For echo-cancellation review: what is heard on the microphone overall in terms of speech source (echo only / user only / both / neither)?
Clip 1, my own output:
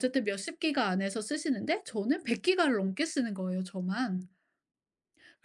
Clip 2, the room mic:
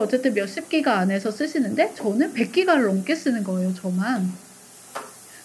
echo only